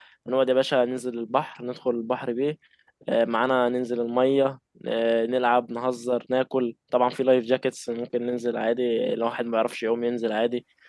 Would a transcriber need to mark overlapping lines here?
No

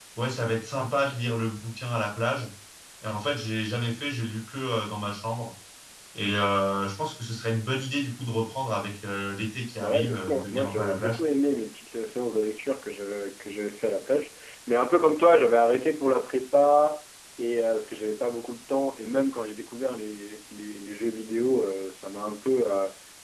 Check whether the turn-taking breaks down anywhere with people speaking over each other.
Yes, from 9.8 s

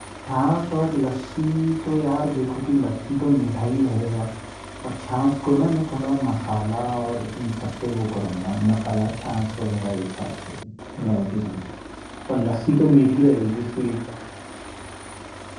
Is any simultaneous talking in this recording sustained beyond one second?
No

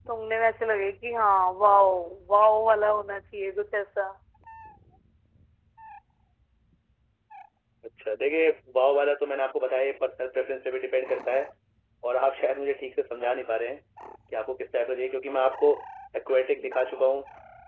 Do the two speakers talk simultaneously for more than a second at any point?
No

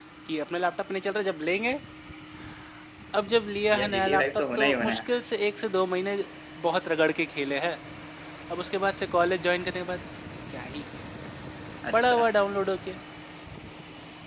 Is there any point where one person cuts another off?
Yes, from 3.7 s

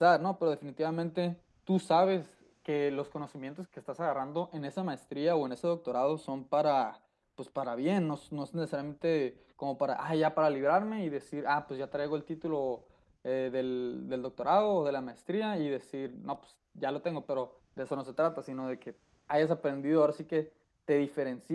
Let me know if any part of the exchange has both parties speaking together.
No

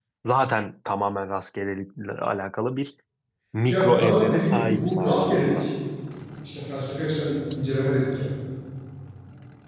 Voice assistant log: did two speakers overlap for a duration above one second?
Yes, from 3.7 s

